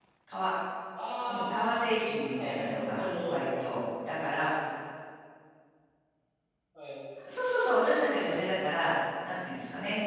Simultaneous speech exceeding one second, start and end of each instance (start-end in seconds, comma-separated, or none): 2.4-3.7